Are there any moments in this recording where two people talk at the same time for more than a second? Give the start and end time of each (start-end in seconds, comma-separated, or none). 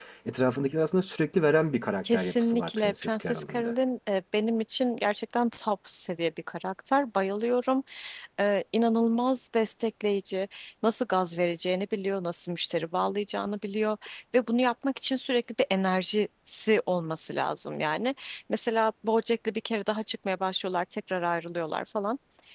2.0-3.7